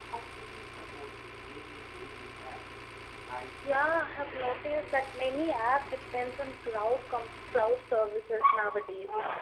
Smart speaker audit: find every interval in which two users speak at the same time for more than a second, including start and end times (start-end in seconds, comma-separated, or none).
3.7-5.4